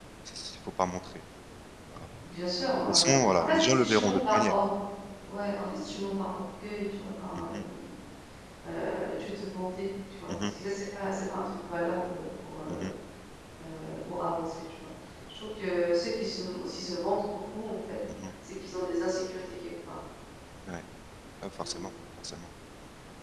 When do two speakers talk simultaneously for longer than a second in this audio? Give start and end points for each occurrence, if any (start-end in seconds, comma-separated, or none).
2.9-4.5